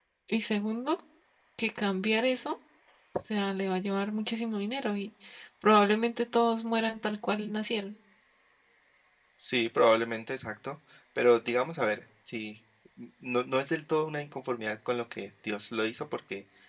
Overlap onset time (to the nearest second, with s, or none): none